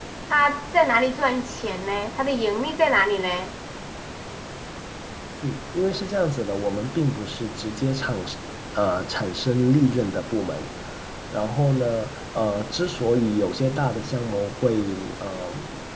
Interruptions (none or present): none